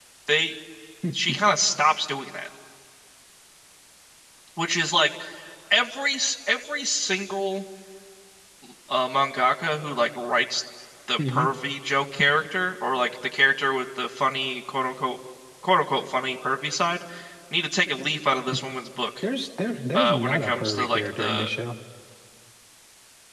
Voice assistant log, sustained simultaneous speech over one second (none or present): present